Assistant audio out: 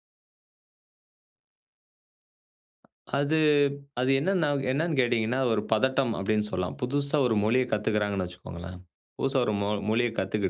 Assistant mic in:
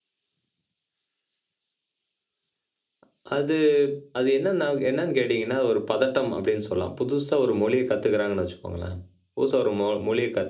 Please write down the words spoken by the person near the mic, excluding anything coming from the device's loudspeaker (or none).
none